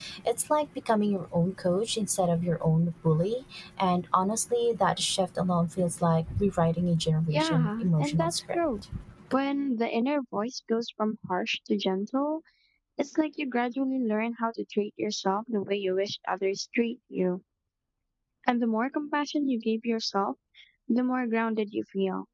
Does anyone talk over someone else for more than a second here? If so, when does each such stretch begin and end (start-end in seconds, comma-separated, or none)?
7.3-8.8